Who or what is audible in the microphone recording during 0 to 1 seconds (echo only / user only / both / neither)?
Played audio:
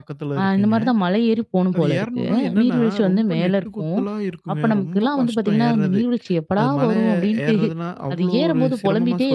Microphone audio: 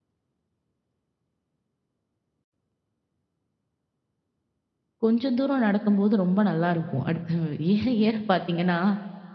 neither